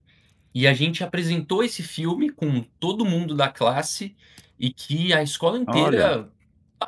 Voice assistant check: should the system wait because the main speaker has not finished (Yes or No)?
Yes